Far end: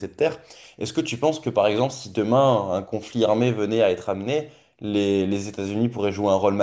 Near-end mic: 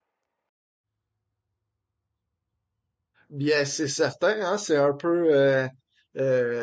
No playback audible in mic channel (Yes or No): Yes